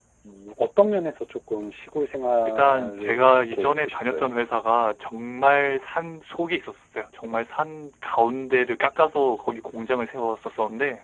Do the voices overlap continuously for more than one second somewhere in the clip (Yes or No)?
Yes